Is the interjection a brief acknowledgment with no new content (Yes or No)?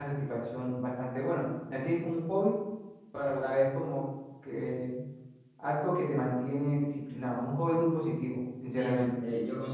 No